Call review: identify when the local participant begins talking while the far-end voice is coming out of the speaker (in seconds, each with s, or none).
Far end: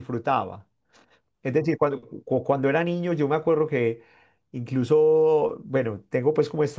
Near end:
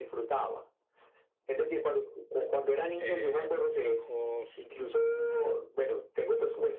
3.0 s